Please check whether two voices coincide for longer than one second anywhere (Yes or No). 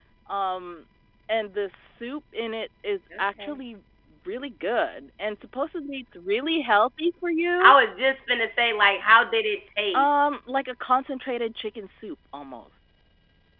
No